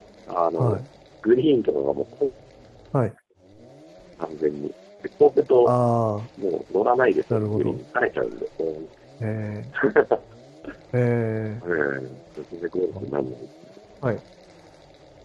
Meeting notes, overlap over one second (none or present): none